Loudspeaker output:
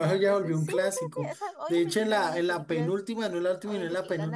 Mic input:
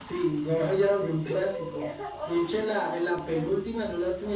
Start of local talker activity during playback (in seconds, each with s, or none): none